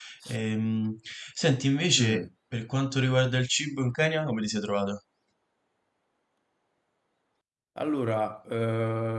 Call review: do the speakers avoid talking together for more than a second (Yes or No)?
Yes